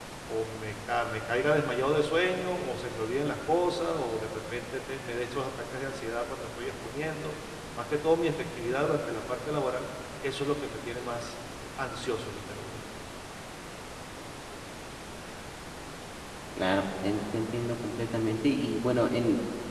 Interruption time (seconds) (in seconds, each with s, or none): none